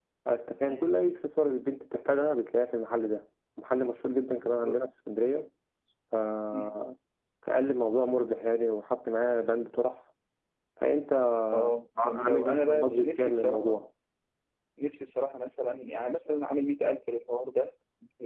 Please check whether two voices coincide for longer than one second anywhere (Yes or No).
Yes